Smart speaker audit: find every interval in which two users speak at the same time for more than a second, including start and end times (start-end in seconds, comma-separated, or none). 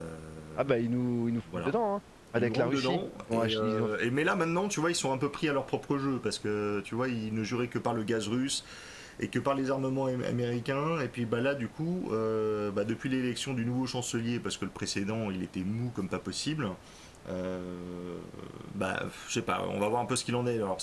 2.3-3.9